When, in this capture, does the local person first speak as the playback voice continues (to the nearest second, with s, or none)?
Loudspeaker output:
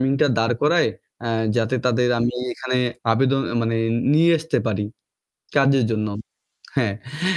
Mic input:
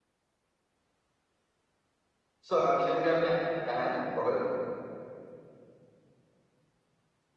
2 s